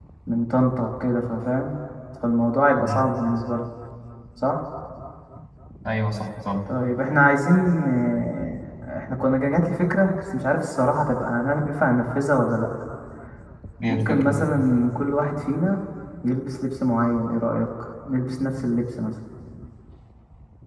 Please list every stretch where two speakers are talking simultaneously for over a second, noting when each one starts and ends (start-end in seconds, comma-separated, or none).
none